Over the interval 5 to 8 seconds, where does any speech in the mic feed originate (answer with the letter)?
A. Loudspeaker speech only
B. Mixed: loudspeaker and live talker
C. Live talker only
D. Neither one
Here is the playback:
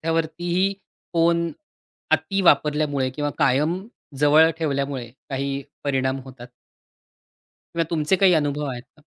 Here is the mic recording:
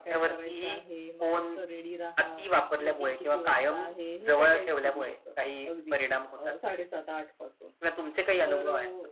B